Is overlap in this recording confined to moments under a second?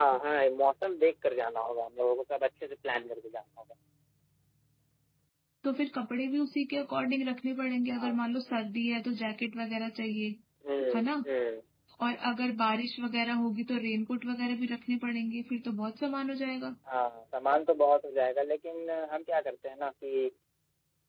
Yes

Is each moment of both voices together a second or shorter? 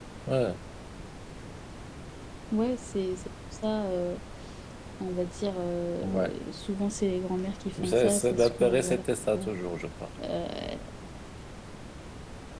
No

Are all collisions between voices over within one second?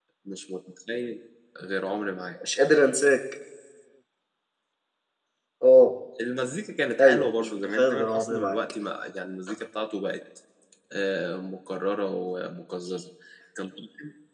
No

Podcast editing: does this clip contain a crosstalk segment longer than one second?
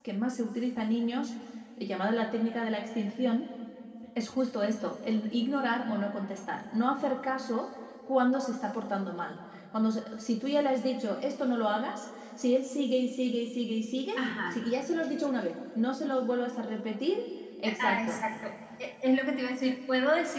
No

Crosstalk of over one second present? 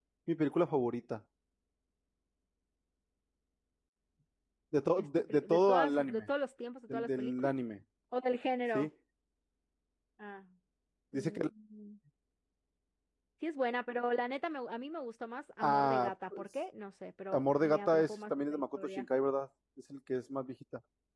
Yes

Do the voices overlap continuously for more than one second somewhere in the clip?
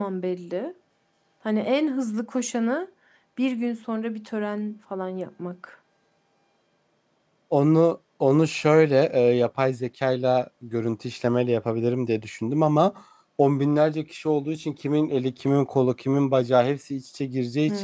No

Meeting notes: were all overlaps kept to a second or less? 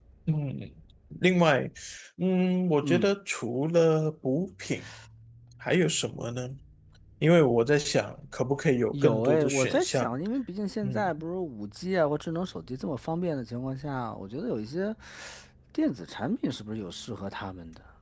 No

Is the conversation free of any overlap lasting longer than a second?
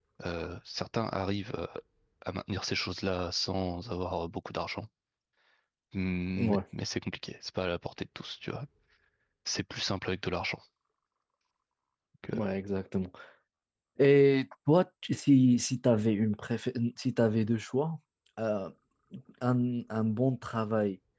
Yes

